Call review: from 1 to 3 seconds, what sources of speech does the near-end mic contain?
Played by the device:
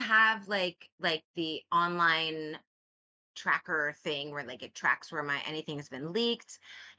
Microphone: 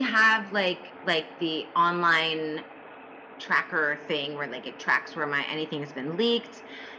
echo only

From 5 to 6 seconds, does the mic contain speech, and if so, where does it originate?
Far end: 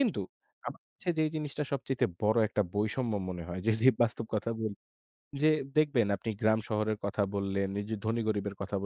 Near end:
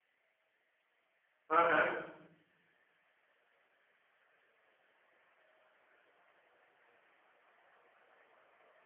neither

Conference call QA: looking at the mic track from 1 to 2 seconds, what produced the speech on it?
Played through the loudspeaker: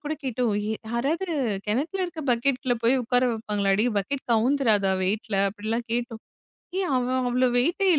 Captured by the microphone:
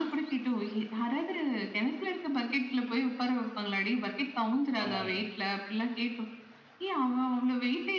echo only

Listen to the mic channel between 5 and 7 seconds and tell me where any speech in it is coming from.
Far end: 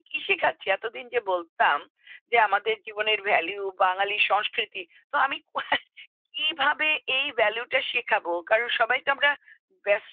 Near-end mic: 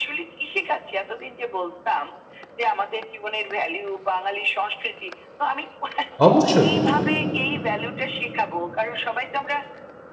both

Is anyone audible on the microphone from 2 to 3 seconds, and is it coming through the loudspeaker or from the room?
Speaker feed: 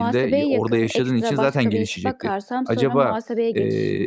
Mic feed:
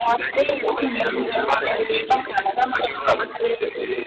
echo only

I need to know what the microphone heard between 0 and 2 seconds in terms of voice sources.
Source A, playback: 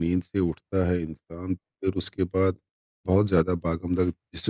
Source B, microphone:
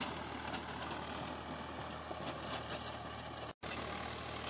neither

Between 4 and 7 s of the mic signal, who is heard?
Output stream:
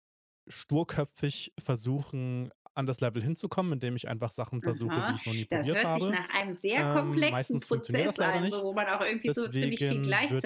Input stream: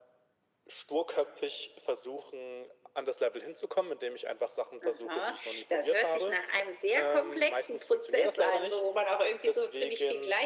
echo only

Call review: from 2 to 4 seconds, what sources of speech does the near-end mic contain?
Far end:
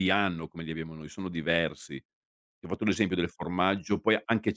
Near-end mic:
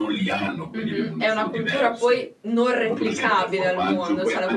both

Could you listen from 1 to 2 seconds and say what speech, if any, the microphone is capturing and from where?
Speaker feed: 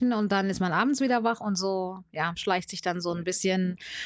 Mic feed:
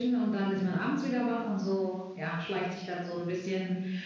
echo only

